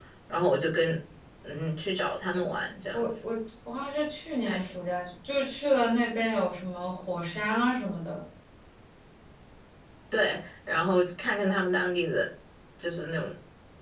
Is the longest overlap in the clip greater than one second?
No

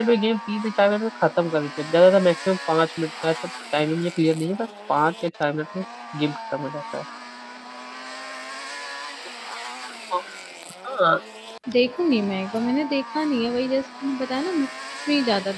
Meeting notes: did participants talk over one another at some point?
No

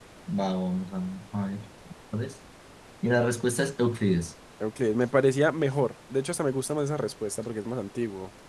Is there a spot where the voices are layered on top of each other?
No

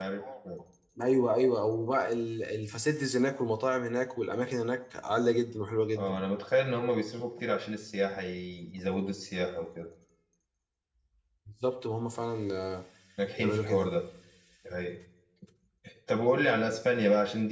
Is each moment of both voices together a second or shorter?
Yes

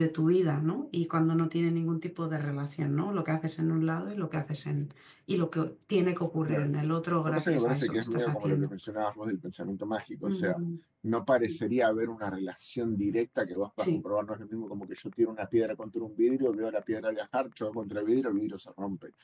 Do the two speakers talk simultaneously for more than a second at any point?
Yes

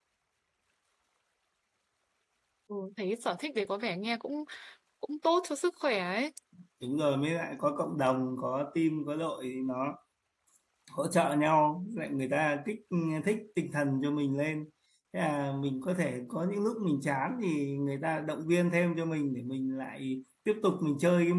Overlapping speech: No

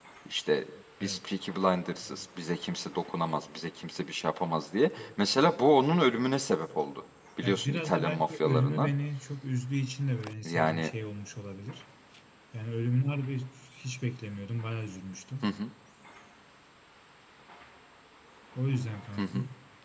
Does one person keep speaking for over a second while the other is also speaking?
Yes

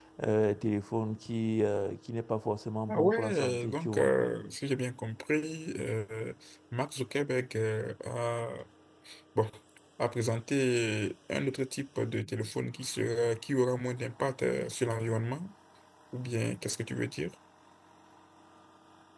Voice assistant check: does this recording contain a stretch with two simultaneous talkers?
Yes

